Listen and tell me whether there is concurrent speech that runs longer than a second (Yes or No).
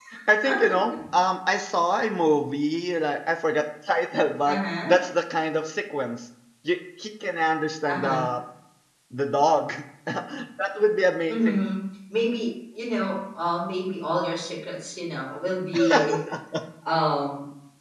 No